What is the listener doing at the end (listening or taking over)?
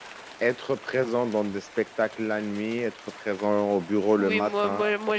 taking over